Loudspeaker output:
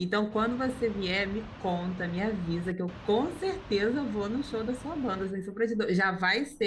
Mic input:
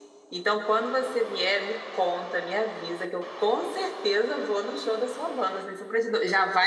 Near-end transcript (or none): none